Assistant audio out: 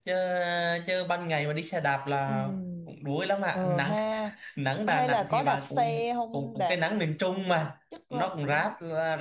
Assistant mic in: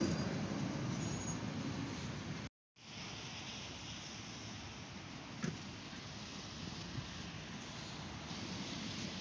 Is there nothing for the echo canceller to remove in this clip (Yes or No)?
Yes